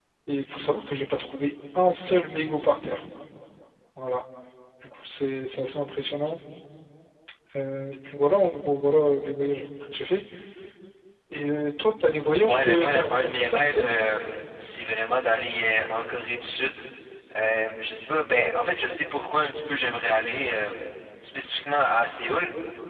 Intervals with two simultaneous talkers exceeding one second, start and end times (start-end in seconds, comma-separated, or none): 12.4-14.0